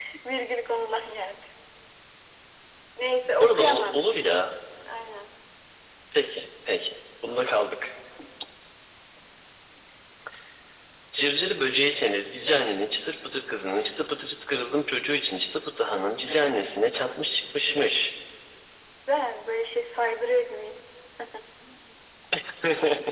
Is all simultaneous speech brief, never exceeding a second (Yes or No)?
No